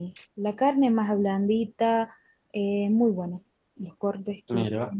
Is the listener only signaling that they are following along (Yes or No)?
Yes